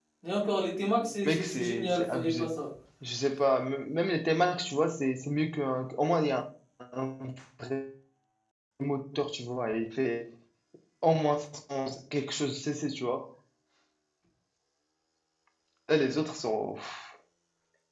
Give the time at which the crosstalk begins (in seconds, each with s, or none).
1.2 s